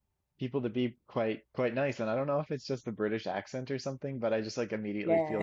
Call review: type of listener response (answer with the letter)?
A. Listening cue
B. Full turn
A